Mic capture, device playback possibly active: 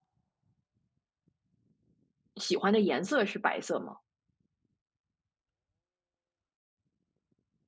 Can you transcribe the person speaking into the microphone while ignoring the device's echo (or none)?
喜欢的颜色是白色吗？